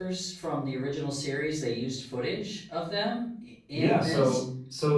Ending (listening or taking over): taking over